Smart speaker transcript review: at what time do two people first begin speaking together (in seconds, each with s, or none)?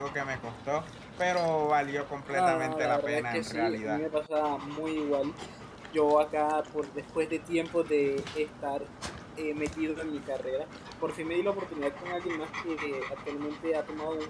2.3 s